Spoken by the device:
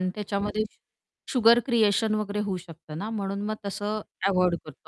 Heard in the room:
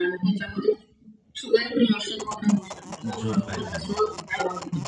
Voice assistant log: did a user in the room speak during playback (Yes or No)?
Yes